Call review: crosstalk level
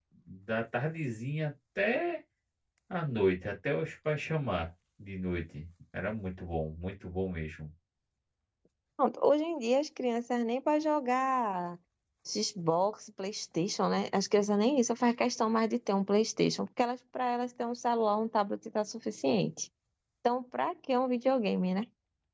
none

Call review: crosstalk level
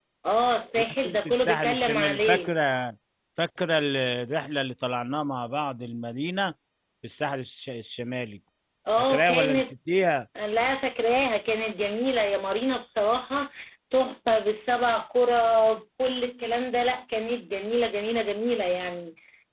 present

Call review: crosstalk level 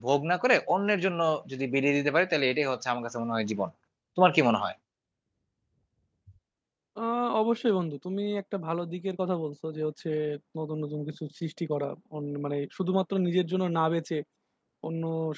none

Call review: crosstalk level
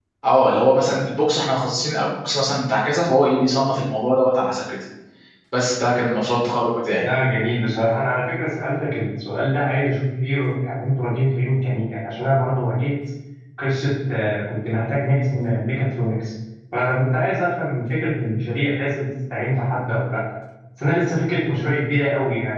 none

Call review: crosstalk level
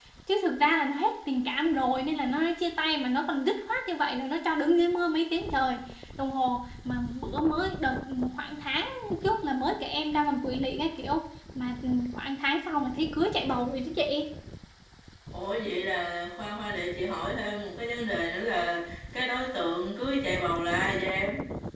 none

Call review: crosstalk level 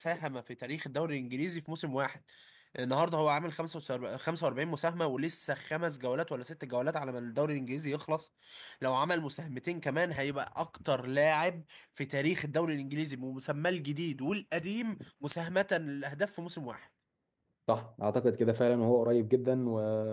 none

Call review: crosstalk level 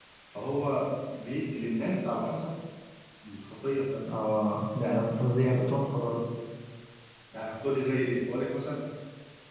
none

